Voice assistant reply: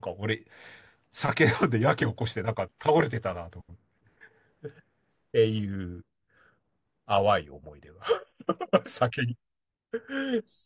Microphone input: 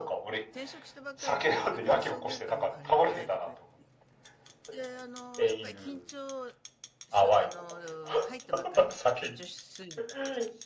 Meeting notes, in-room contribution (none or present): present